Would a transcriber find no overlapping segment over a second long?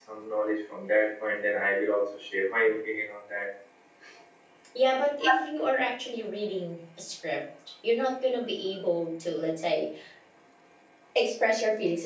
Yes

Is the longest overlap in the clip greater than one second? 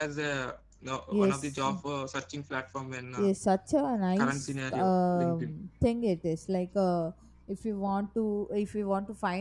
Yes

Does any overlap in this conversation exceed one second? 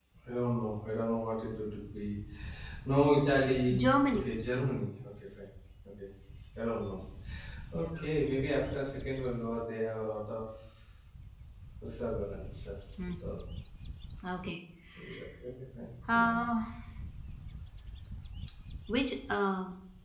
No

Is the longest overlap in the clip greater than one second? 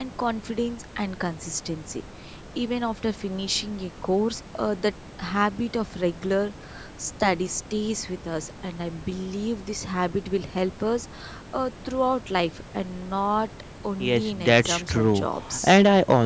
Yes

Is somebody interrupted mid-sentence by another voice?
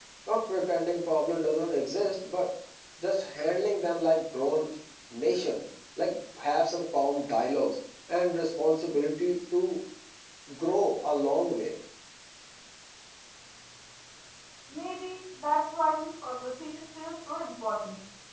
No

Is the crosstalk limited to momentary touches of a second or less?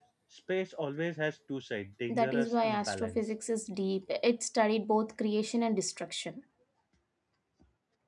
No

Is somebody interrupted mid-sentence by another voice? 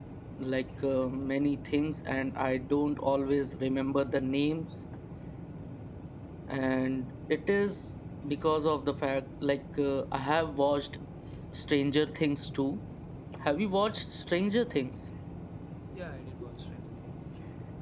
No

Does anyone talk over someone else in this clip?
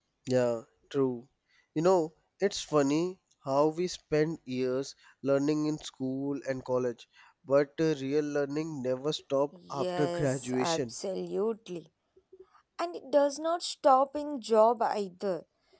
Yes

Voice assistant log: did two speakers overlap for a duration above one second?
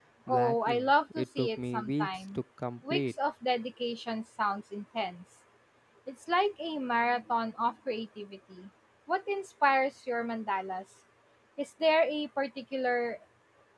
Yes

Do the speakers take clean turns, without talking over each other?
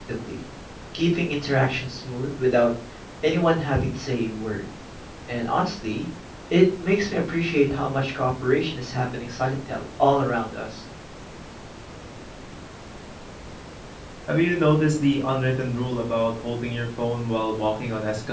Yes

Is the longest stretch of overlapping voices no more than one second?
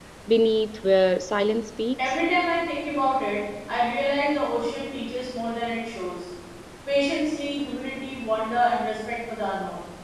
Yes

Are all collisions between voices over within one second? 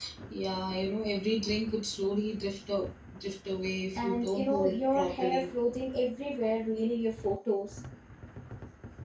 No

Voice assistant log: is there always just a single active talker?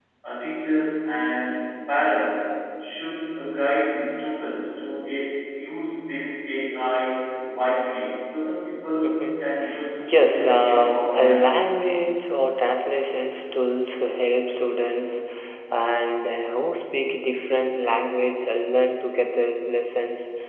No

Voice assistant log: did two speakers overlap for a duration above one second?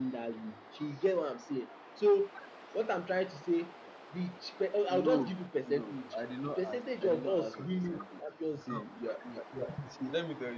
Yes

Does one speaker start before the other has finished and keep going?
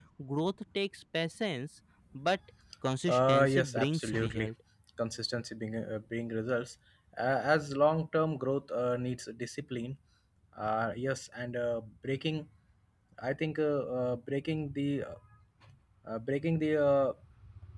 Yes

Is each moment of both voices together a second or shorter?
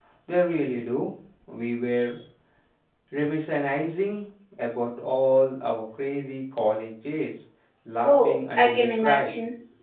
No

